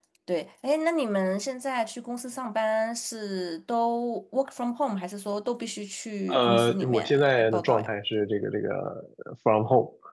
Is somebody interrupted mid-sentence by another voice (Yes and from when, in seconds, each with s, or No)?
Yes, from 6.3 s